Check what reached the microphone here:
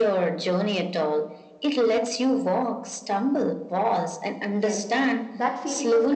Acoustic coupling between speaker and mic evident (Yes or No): Yes